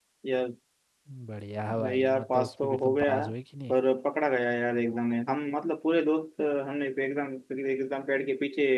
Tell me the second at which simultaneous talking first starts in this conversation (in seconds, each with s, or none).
1.8 s